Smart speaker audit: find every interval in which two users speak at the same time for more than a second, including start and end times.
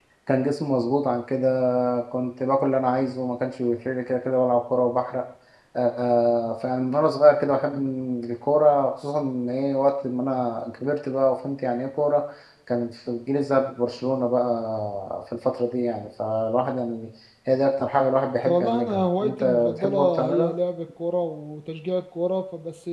18.4-20.5

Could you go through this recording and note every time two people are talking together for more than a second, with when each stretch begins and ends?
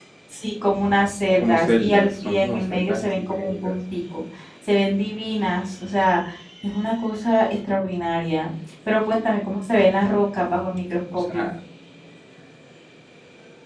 1.4-3.8

